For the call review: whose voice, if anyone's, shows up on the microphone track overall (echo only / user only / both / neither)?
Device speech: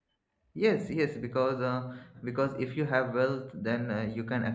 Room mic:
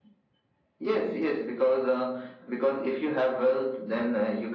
echo only